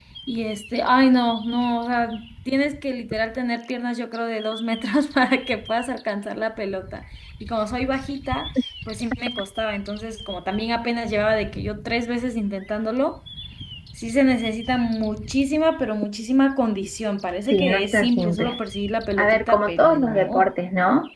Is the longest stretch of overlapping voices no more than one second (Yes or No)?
No